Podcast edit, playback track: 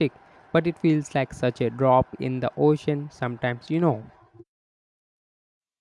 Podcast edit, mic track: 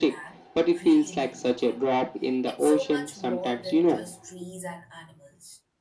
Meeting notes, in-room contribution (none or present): present